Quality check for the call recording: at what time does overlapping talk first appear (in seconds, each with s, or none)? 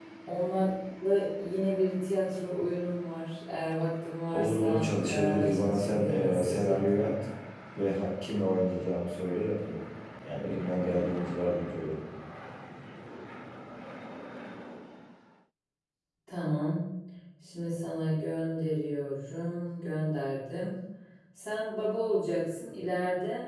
4.3 s